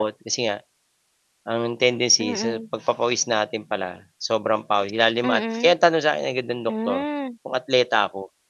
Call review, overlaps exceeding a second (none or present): none